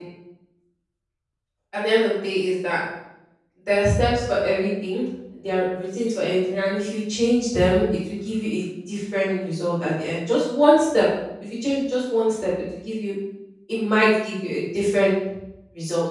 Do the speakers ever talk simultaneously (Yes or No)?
No